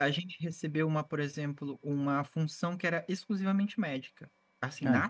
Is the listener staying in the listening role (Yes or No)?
Yes